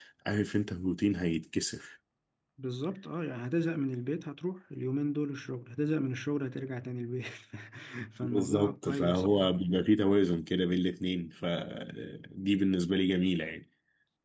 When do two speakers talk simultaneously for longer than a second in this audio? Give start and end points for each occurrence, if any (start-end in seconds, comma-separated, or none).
8.2-9.5